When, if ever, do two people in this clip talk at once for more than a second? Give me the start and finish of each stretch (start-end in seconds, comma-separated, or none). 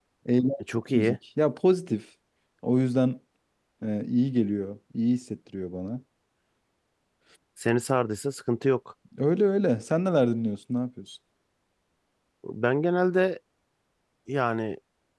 none